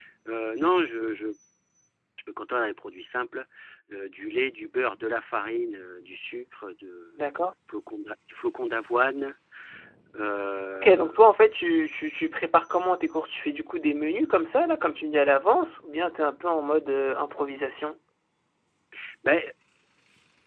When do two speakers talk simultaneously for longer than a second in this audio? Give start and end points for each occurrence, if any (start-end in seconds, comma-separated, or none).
none